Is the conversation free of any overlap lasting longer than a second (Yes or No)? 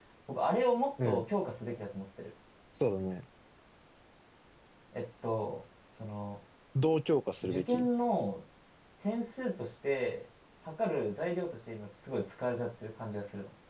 Yes